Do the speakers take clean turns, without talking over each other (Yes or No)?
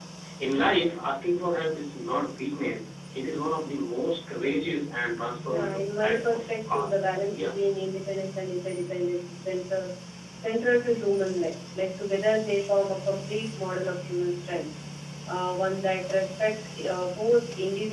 No